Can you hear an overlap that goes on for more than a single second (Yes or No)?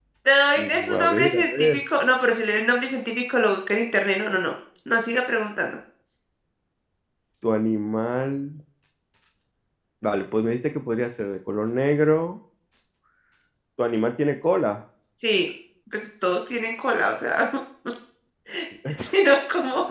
Yes